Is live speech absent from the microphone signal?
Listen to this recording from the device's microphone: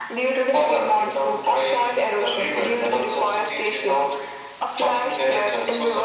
Yes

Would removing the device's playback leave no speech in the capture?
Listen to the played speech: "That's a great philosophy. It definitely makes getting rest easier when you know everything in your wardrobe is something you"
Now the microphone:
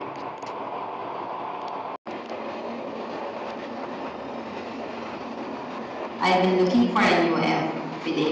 No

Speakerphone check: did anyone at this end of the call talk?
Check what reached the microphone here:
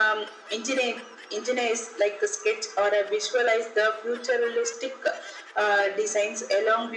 No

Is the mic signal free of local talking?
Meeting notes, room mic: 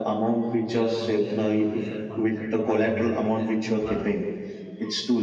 No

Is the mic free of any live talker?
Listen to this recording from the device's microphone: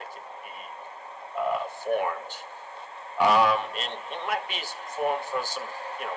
Yes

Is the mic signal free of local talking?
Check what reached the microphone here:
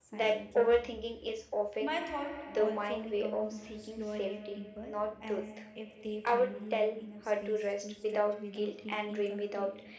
No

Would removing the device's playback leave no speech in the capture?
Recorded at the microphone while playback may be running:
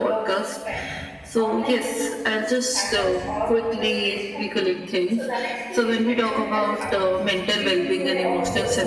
No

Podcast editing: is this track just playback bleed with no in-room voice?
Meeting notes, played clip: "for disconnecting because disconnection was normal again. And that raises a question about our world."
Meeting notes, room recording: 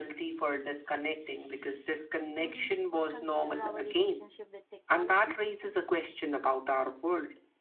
No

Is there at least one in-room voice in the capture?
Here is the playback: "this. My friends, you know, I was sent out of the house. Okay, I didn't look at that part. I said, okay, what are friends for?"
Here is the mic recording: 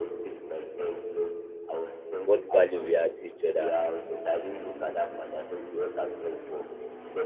Yes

